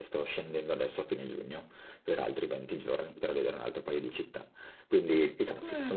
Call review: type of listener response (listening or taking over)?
taking over